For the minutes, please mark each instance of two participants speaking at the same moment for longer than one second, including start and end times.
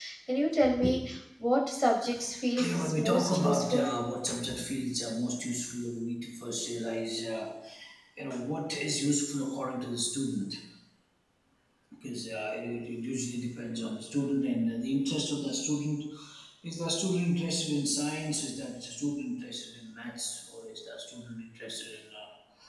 2.6-3.9

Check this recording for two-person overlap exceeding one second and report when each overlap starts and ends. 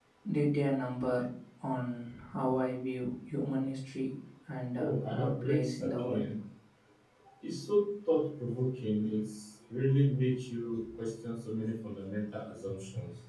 4.8-6.2

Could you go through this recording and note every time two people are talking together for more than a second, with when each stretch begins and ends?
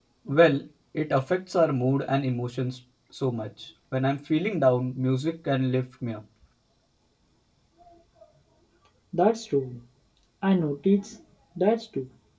none

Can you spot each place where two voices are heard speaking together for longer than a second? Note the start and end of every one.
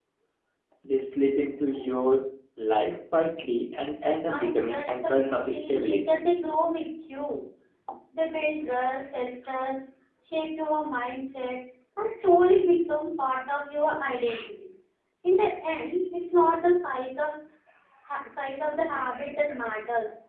4.3-6.3

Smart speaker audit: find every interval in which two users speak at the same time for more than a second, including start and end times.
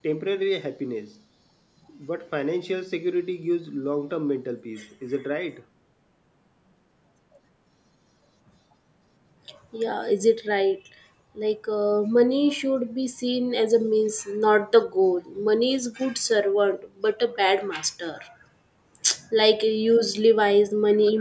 none

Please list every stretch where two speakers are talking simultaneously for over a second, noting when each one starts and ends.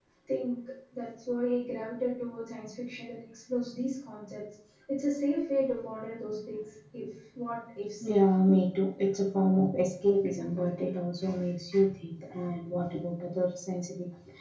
none

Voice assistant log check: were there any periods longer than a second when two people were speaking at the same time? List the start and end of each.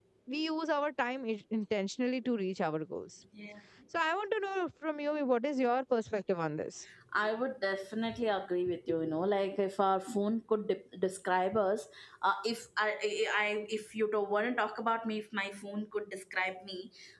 none

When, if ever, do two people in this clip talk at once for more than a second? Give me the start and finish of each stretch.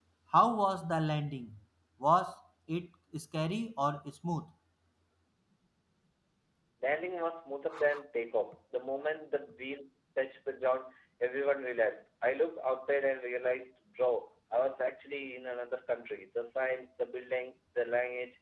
none

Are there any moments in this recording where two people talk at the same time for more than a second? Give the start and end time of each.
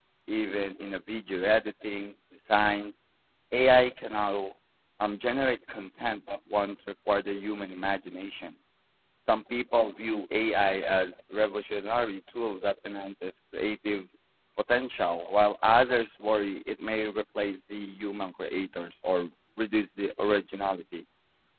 none

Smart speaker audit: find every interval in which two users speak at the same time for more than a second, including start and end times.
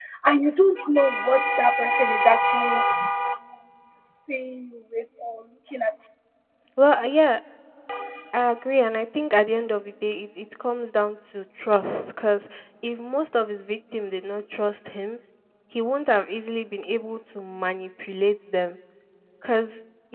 none

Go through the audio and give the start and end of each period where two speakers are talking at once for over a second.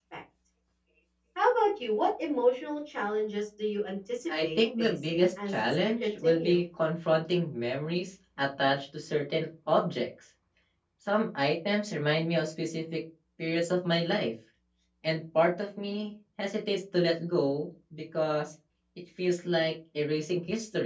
4.3-6.6

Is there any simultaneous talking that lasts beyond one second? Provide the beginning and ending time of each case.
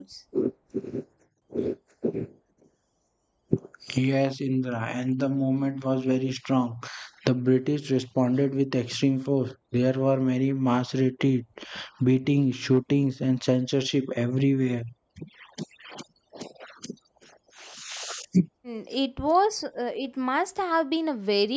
none

